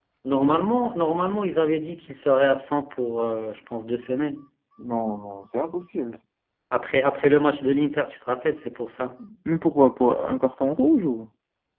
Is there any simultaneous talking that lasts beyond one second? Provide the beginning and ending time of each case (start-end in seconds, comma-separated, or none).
none